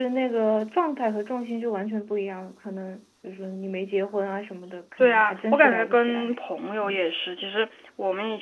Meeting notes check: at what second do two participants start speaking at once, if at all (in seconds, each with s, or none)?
5.0 s